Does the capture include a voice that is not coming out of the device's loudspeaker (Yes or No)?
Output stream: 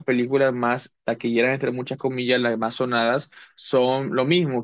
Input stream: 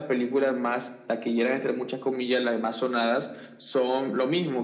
No